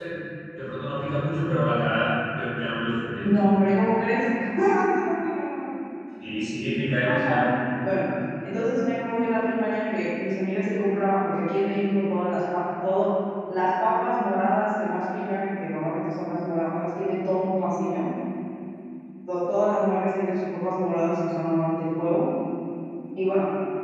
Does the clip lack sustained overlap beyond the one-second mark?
Yes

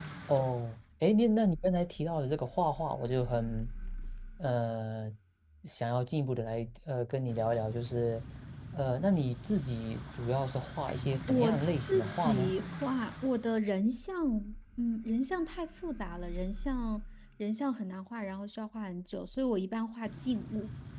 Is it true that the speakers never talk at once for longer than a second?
No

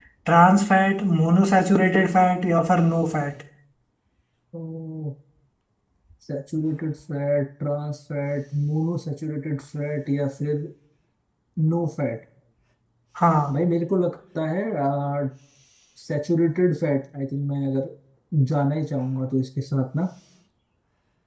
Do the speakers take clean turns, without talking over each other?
Yes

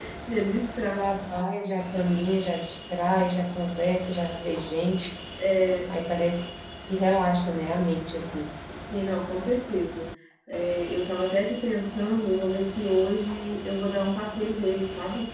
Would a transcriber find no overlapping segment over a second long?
Yes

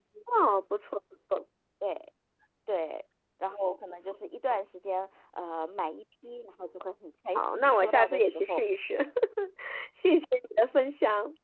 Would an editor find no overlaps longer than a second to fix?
No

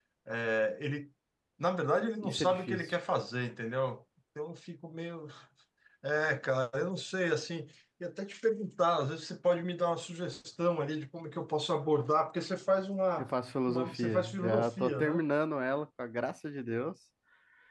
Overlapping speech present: Yes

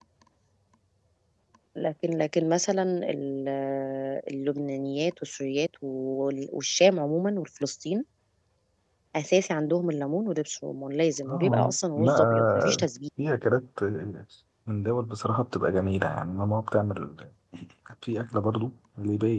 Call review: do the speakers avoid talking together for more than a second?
No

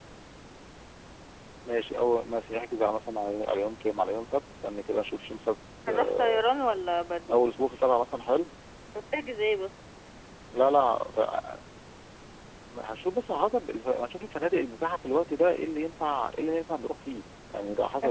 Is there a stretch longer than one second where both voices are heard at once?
No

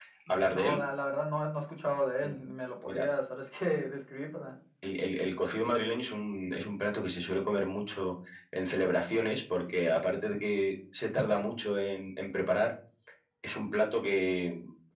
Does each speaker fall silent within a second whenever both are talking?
Yes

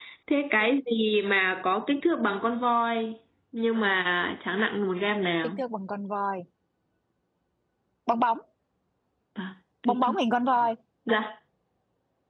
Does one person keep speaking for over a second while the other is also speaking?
No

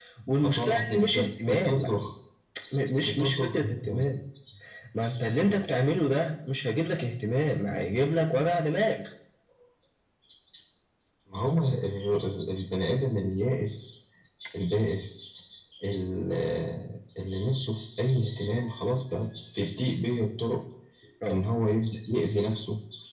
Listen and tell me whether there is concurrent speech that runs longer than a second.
Yes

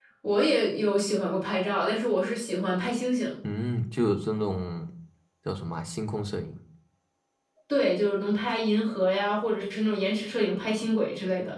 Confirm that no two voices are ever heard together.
Yes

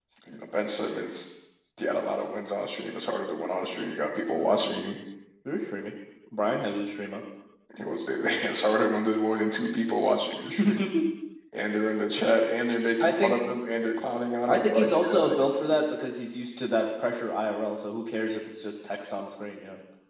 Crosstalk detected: Yes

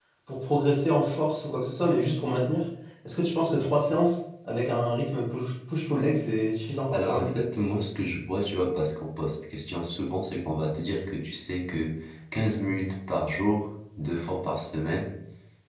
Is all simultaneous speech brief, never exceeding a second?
Yes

